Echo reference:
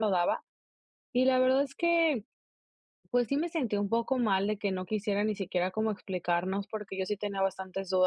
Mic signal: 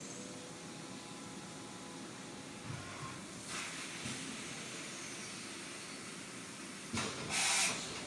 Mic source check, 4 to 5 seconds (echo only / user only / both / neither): neither